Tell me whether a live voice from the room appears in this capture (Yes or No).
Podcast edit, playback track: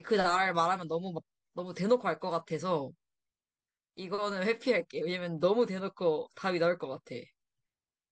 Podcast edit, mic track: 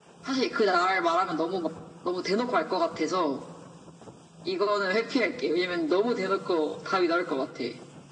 No